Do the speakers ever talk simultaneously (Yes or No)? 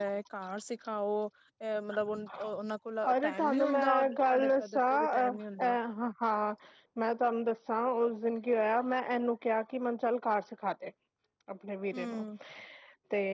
Yes